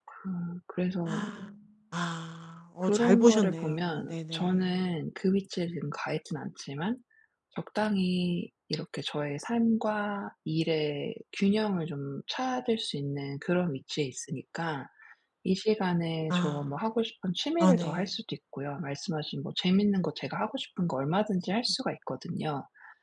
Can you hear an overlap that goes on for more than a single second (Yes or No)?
Yes